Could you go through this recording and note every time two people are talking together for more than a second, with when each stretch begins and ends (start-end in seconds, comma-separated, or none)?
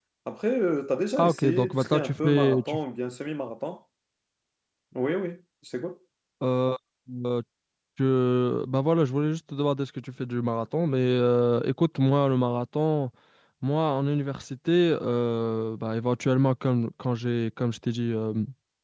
1.2-2.8